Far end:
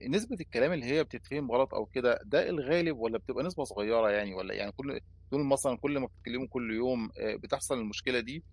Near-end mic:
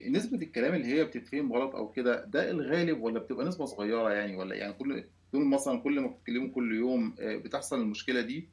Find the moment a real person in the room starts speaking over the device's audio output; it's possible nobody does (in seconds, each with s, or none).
none